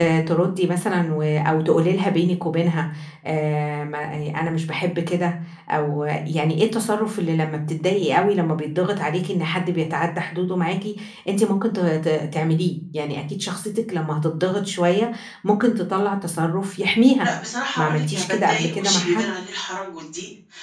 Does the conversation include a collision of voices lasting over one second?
Yes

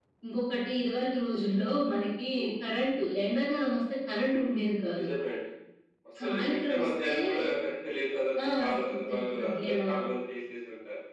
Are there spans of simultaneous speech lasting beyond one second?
Yes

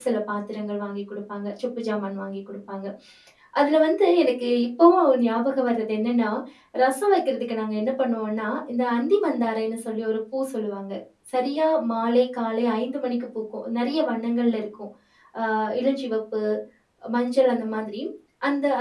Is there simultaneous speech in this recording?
No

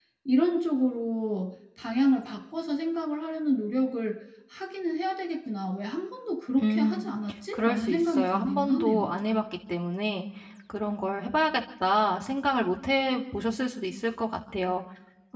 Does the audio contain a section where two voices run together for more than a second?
Yes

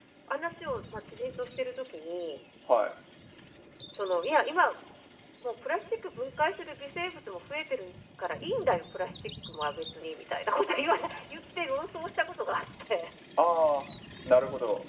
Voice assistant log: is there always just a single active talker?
Yes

